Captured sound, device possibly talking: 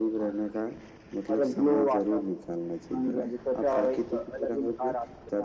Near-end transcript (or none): none